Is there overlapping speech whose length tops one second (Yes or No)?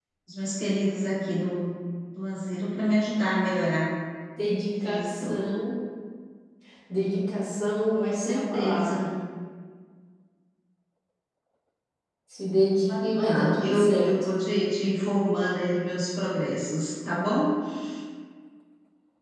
Yes